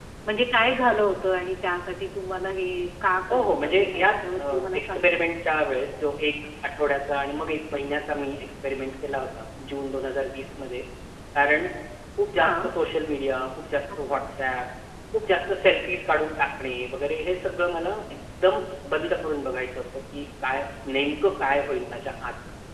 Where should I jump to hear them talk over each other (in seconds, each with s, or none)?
3.3 s